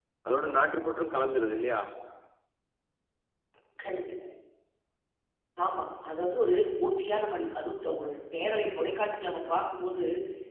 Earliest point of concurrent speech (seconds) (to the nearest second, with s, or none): none